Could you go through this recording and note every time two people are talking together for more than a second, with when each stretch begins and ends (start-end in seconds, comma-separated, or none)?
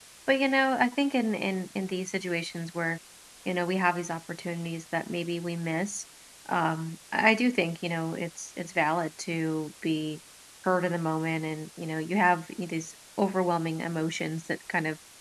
none